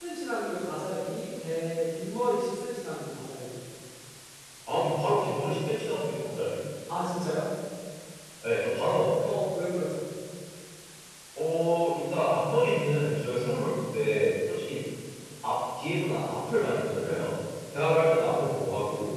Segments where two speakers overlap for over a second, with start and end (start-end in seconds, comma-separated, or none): none